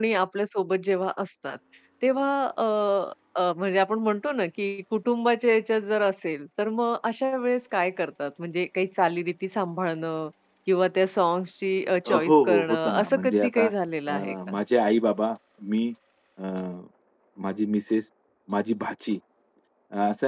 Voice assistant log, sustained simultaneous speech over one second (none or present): present